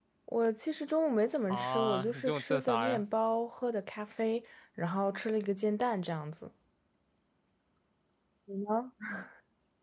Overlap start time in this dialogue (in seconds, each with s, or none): 1.5 s